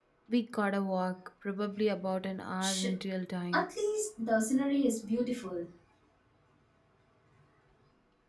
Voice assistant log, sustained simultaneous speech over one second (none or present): none